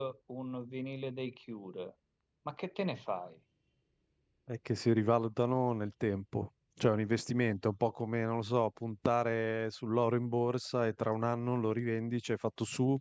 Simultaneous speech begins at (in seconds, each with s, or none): none